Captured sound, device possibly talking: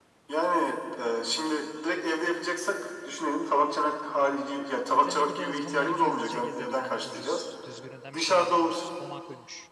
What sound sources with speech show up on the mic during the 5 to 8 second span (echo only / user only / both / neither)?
both